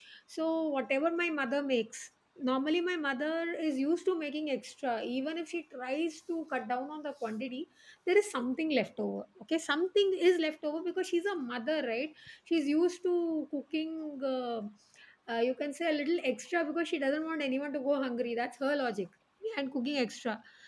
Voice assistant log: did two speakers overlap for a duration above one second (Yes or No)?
No